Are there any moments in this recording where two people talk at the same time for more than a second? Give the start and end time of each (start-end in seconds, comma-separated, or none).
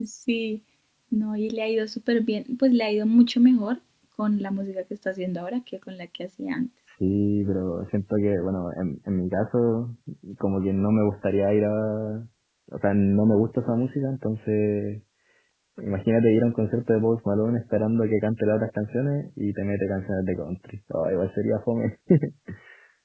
none